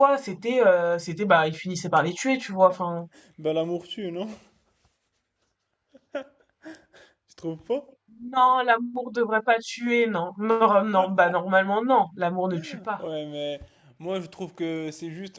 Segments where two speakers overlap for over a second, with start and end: none

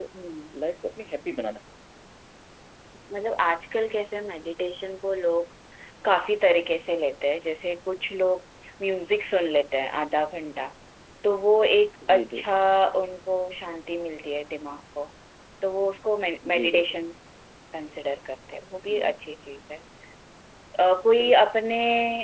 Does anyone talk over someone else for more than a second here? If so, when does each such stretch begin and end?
none

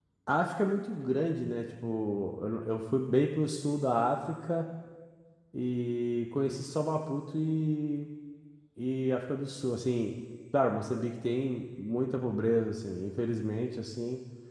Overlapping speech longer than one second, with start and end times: none

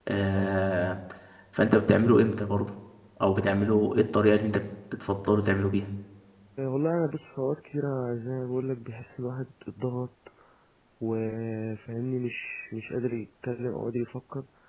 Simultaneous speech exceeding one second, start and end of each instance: none

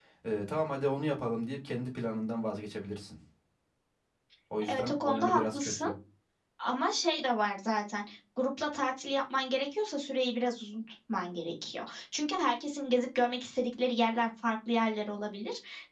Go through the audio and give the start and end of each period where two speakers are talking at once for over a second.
4.7-5.9

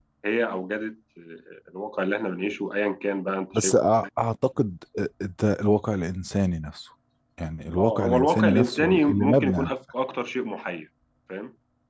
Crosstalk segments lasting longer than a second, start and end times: 7.8-9.7

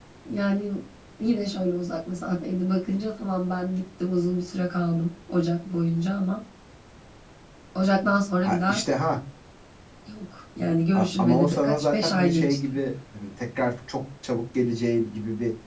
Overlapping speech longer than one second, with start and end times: 10.9-12.6

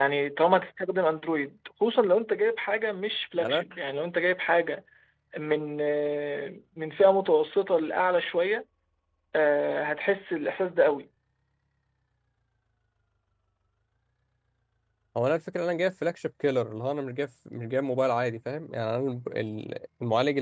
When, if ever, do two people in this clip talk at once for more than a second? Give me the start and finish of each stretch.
none

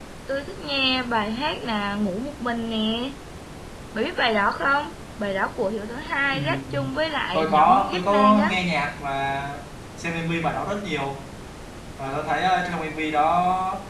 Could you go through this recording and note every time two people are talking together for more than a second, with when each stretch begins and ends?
7.3-8.6

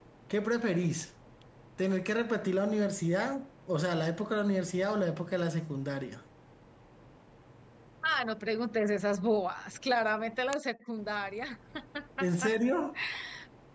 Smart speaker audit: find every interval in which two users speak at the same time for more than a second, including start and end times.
none

